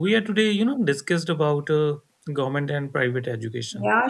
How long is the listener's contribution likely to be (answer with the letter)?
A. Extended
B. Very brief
A